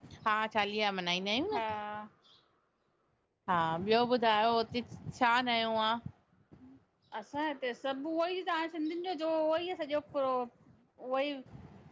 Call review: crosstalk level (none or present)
none